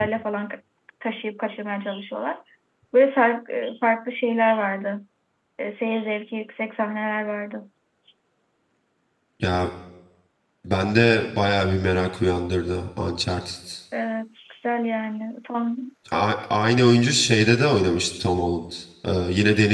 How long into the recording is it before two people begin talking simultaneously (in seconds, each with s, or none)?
none